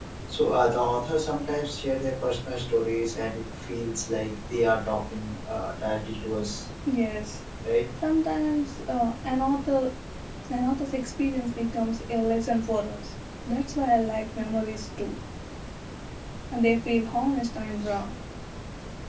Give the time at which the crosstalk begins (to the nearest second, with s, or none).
none